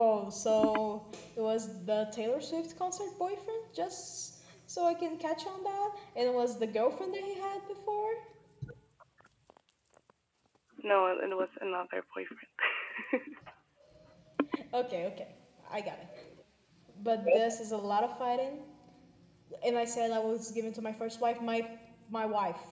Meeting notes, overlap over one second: none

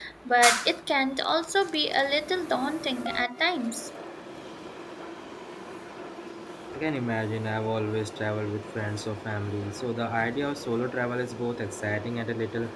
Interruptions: none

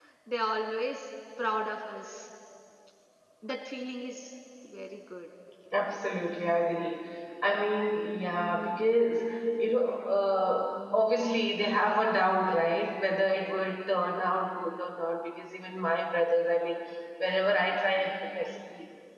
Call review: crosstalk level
none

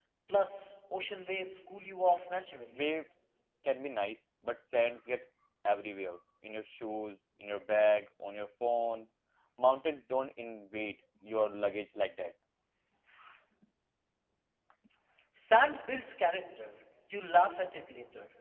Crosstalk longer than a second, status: none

